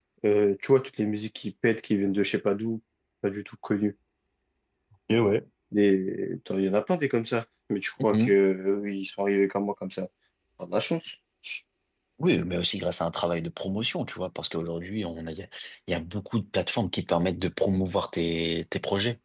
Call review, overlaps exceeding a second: none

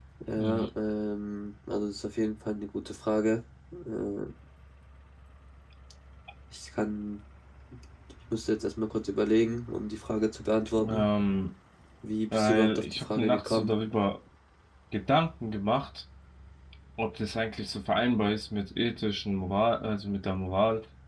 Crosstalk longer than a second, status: present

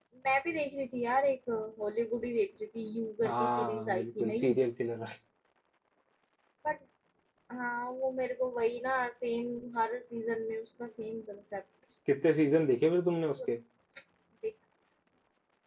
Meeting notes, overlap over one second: present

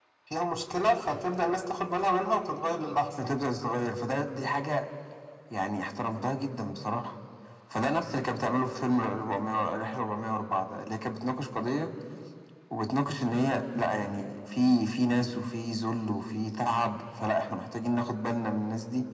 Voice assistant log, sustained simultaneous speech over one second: none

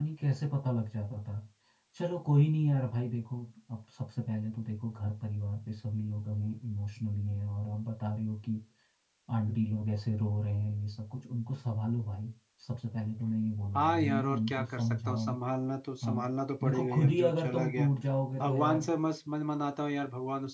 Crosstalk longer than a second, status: present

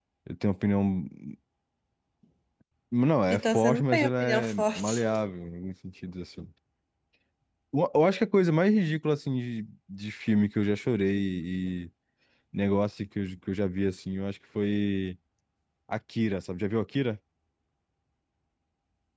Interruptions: present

